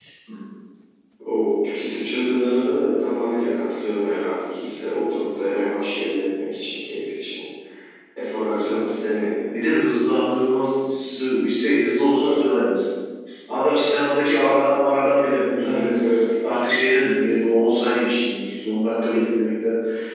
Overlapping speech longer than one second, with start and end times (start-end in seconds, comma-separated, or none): none